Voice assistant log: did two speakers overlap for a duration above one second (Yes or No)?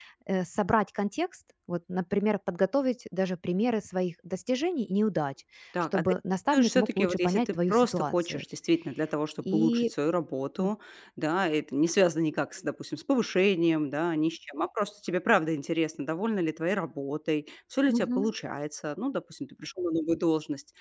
Yes